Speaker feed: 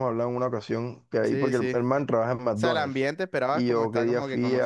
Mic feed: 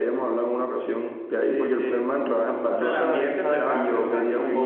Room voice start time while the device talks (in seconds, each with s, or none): 2.7 s